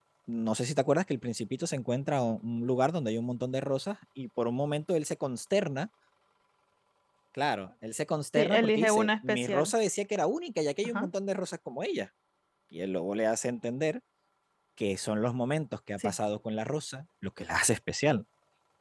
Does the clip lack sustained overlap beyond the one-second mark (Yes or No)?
No